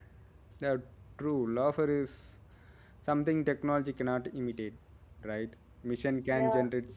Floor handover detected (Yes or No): No